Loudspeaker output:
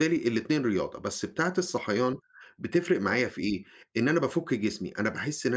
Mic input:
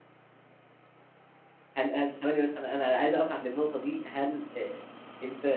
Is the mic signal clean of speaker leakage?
Yes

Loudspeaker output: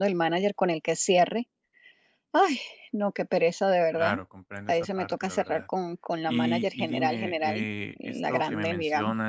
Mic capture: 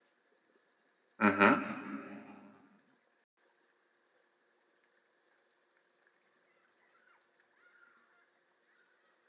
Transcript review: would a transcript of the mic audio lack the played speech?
Yes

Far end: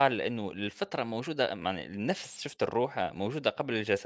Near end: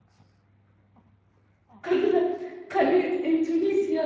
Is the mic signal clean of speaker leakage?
Yes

